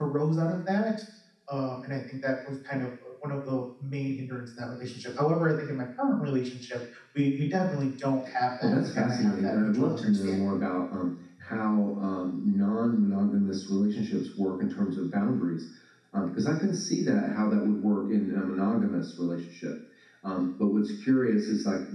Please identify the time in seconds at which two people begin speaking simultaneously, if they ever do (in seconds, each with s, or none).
8.6 s